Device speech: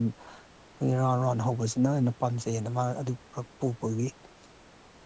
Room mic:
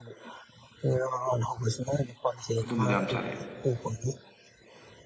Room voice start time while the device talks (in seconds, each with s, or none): 2.6 s